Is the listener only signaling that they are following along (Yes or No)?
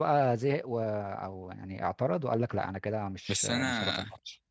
No